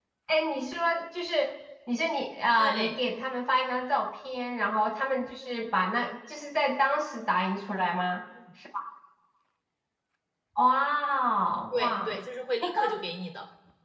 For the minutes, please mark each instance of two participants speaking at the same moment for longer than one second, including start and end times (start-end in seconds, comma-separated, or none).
none